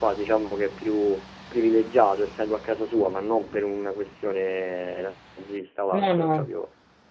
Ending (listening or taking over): listening